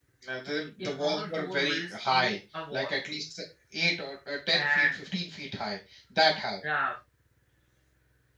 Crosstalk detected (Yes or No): Yes